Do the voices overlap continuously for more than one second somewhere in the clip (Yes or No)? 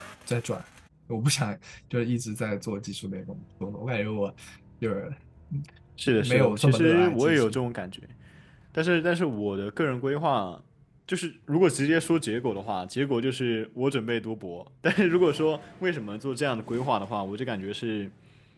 Yes